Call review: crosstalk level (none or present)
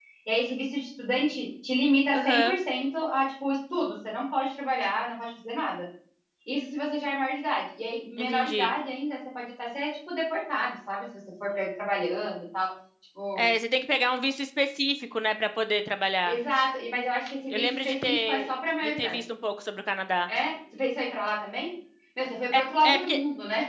present